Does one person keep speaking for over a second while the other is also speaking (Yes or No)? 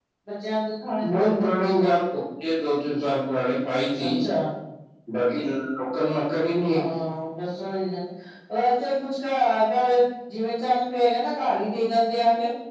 No